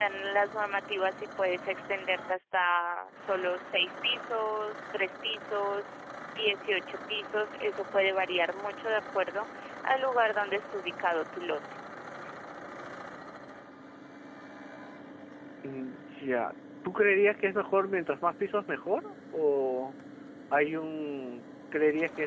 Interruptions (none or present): none